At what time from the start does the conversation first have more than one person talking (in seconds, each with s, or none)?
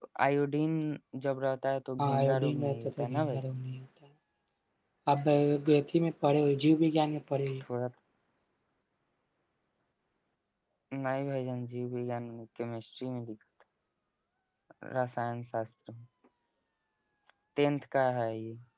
2.0 s